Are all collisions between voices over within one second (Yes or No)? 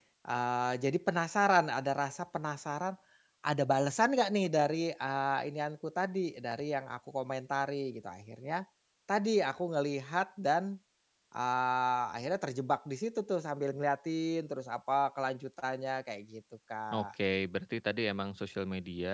Yes